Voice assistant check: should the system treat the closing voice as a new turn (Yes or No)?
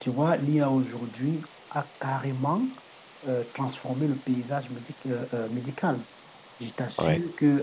No